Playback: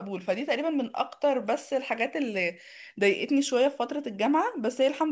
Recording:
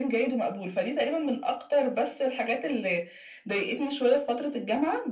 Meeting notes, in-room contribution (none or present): none